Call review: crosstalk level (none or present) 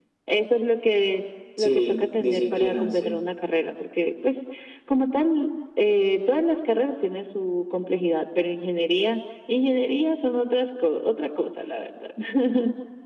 present